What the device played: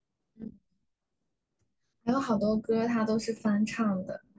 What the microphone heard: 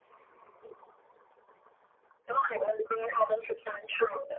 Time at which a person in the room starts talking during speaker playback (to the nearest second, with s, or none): none